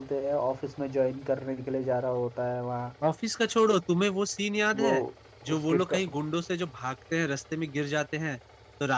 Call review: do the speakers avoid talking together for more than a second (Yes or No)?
Yes